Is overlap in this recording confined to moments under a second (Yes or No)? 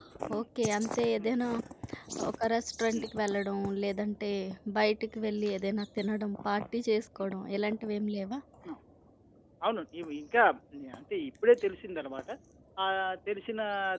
Yes